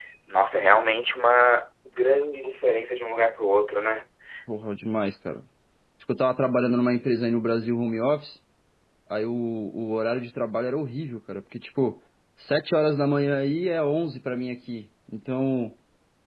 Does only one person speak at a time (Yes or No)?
Yes